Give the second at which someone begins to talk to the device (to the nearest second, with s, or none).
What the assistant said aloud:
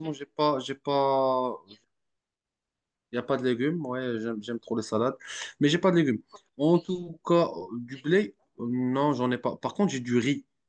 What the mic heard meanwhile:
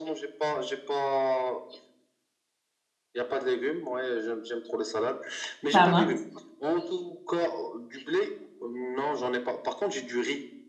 6 s